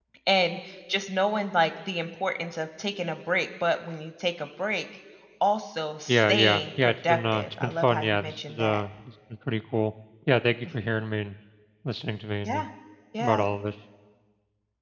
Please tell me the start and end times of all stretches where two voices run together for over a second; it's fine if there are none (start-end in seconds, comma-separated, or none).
6.1-8.8